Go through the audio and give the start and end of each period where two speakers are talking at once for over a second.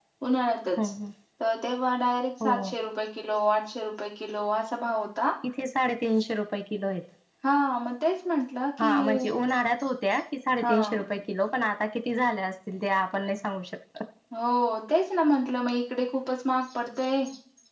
none

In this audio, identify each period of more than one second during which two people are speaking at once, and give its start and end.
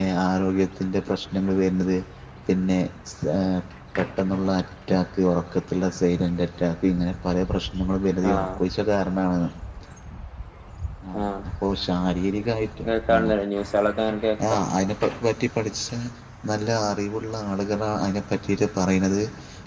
none

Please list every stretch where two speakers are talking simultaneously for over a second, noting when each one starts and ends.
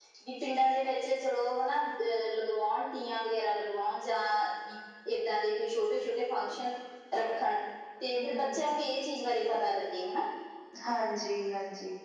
none

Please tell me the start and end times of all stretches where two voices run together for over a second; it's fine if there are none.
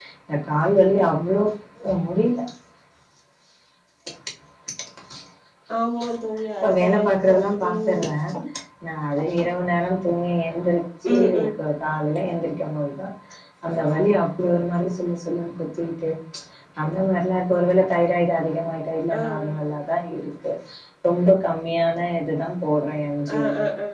6.6-8.0

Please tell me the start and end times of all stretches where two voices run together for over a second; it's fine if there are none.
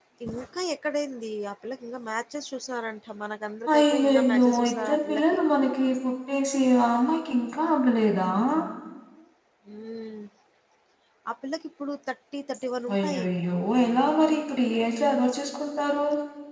3.8-5.2

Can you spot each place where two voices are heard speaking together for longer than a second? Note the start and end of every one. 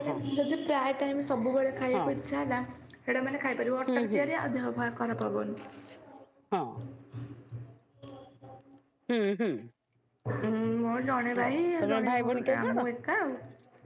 11.4-12.8

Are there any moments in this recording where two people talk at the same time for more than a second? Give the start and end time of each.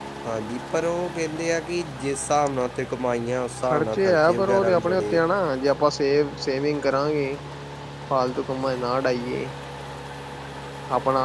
3.6-5.2

